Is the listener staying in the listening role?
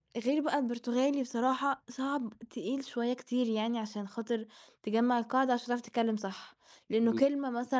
No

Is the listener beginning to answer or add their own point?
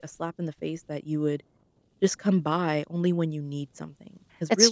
No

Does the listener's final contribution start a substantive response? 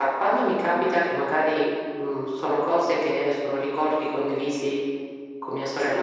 No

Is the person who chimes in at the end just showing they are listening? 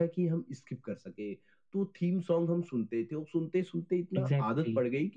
Yes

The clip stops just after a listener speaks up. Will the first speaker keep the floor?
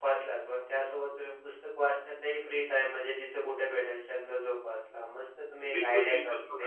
No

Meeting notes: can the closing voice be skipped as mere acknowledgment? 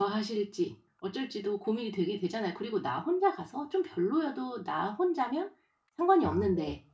Yes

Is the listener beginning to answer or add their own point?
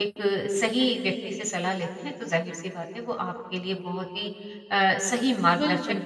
No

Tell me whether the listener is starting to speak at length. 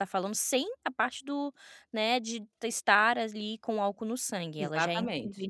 No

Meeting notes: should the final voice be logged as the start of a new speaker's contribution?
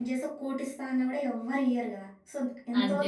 No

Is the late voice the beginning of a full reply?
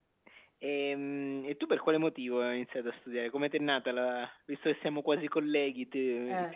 No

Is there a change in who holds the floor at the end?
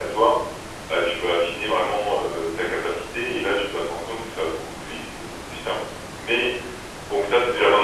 Yes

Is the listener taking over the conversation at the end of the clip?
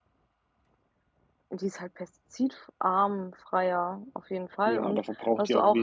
Yes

